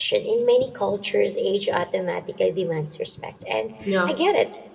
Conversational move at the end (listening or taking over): listening